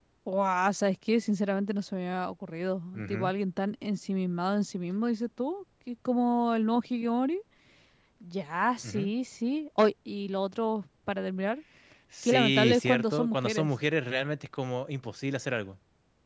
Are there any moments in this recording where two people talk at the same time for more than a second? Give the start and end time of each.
12.2-13.7

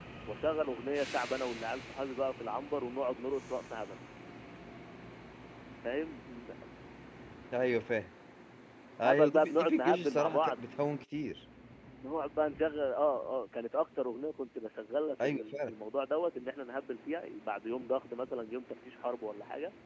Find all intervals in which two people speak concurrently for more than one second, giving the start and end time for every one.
9.0-10.6

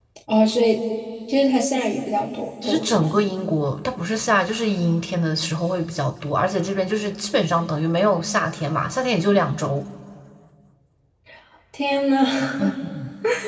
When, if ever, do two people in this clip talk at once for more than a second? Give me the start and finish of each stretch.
none

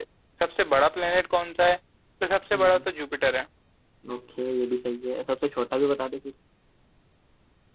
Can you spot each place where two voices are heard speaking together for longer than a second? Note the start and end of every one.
none

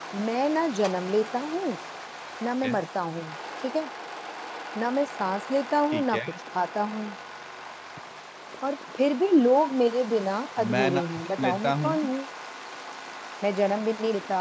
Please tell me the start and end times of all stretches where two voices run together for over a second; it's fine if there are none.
10.6-11.9

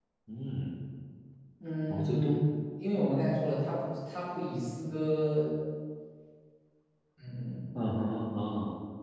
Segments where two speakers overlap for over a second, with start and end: none

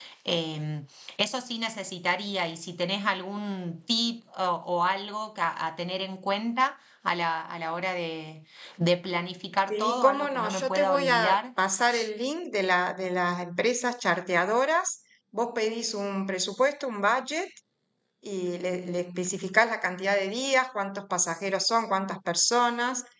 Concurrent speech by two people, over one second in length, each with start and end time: 9.7-11.4

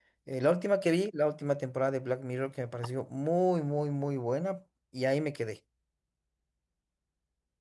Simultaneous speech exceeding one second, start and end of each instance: none

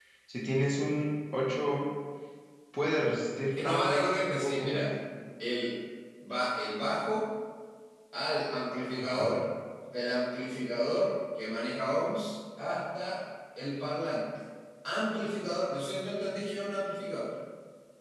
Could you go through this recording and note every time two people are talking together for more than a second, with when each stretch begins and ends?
3.5-4.9

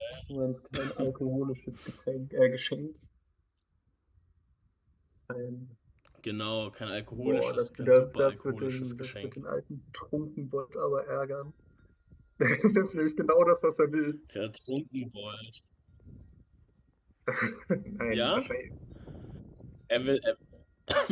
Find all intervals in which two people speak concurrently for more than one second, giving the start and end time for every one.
7.1-9.4

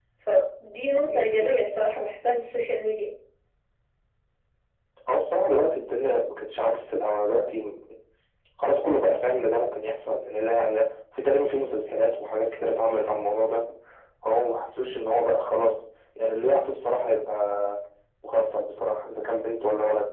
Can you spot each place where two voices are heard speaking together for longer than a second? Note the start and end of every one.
none

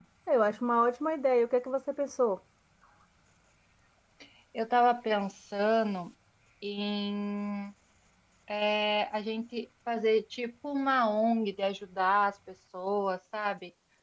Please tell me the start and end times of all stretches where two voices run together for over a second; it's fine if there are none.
none

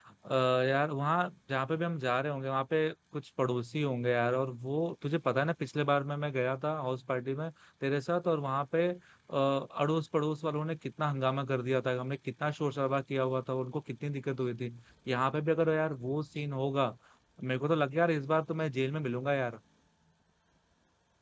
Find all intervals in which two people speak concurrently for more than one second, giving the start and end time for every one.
none

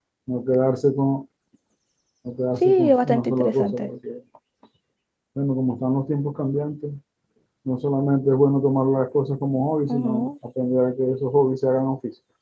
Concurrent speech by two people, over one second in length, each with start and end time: 2.6-3.9

